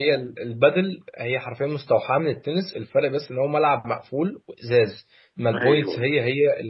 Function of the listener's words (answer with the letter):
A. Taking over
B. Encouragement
B